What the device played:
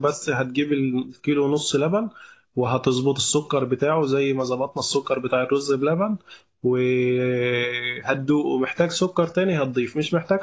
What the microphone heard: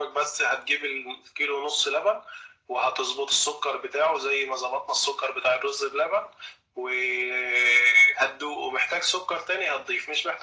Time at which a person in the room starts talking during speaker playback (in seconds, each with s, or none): none